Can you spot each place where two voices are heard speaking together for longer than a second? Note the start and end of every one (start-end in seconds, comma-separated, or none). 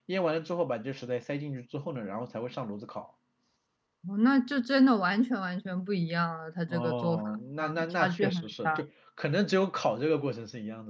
6.7-8.8